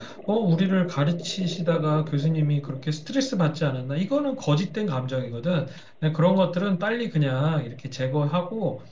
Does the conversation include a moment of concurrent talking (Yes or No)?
No